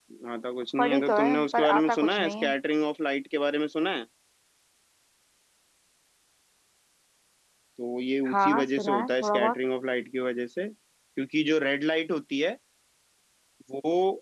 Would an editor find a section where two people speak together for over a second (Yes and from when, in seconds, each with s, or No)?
Yes, from 0.8 s